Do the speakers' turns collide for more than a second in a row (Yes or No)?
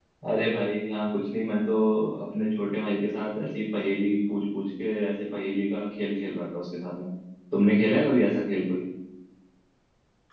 No